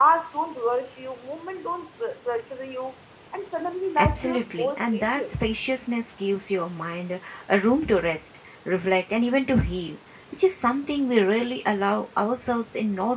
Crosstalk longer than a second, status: present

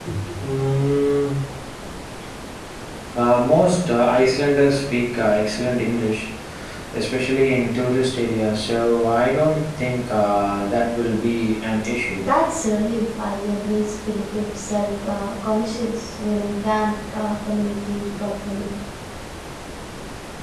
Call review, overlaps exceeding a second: none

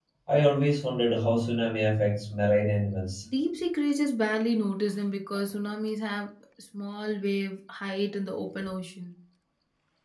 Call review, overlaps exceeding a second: none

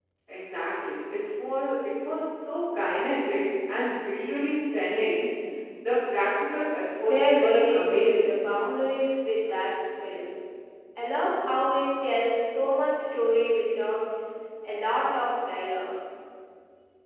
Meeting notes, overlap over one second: present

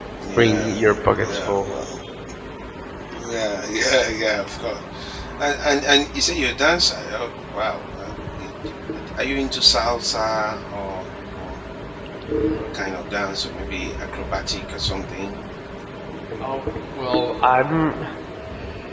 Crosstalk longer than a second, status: present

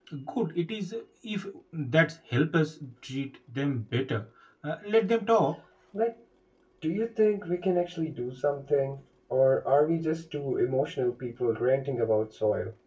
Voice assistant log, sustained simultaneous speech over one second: none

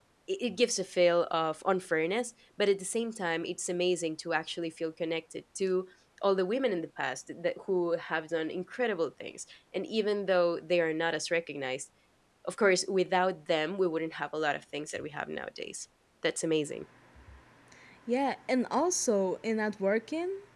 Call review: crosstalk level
none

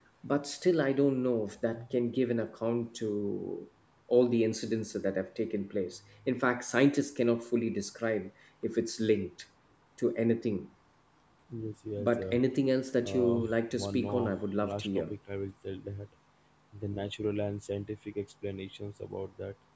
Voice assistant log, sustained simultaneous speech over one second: present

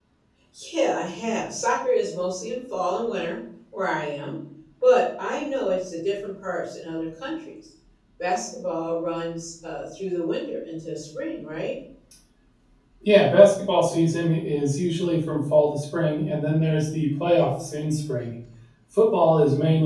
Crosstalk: none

